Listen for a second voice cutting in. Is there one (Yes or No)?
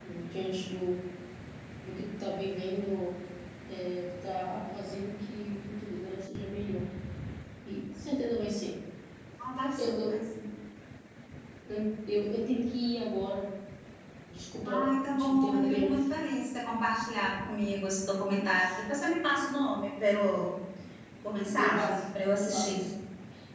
Yes